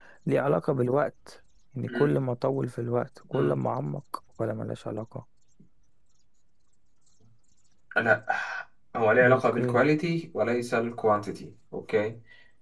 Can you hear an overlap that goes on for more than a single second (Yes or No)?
No